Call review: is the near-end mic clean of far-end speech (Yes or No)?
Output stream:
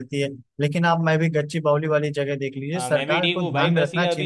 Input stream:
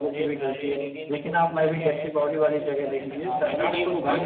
No